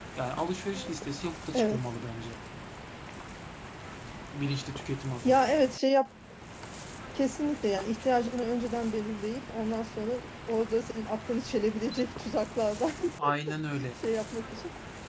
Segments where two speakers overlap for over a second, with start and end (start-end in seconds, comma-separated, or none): none